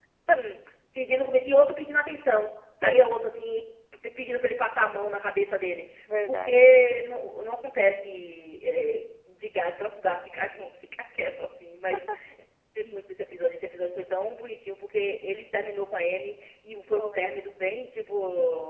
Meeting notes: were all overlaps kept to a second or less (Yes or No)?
Yes